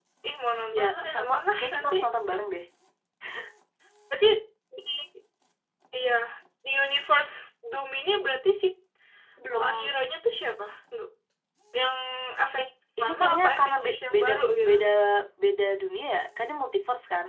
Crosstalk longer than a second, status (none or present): present